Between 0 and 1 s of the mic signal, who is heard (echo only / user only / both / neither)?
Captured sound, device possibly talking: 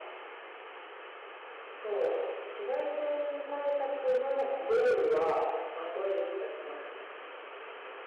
neither